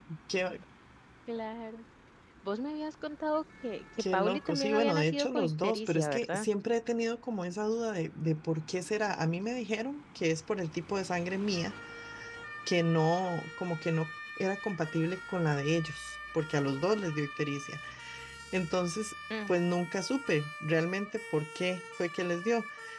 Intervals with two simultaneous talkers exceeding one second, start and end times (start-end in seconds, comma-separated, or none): 4.1-6.5